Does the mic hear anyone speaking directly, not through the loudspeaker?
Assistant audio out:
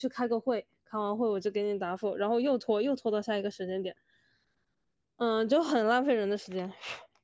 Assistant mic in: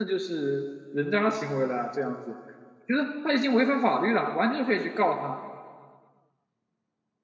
Yes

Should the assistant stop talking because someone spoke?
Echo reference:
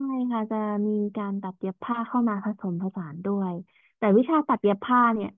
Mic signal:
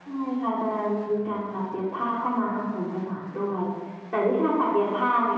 No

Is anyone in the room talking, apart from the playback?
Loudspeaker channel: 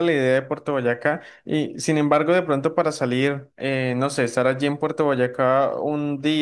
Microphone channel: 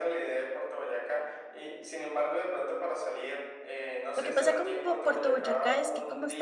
Yes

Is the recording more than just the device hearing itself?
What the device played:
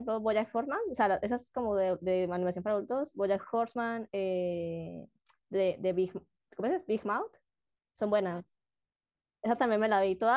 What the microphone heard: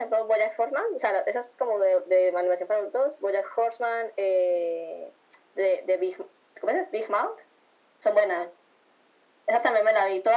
No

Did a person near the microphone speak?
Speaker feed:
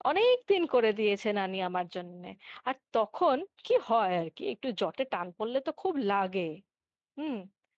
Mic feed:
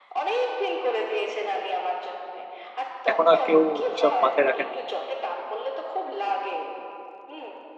Yes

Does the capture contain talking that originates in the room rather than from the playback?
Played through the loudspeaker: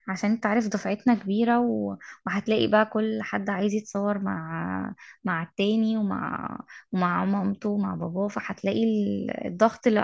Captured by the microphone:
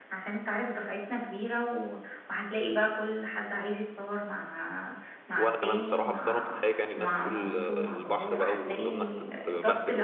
Yes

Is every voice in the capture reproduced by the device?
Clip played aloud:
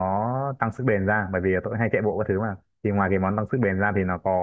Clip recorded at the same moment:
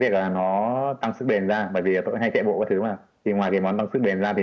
Yes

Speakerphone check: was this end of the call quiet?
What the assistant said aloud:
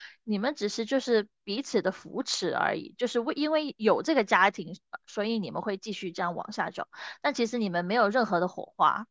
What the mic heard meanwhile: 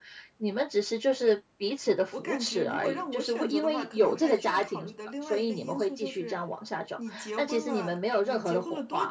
No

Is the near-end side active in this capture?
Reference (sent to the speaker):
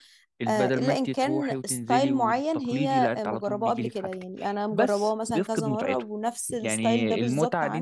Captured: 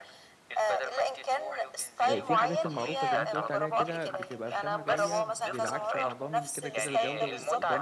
Yes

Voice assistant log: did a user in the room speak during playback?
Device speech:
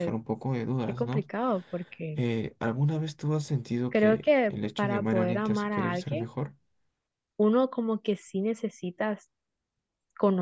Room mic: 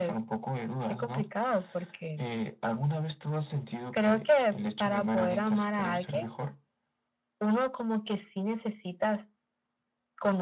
No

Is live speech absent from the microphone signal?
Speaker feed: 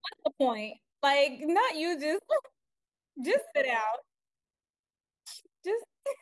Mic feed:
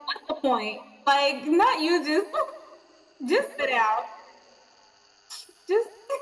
Yes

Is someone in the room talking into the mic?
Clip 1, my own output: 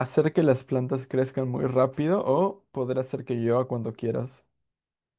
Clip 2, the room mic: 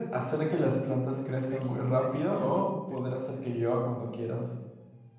Yes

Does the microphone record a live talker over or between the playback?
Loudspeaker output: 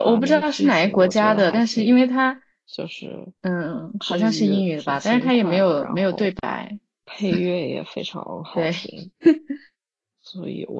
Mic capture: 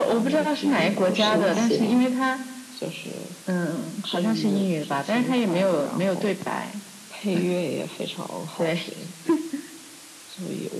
Yes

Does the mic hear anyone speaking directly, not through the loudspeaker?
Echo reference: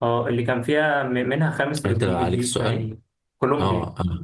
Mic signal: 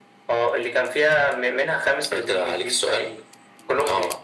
No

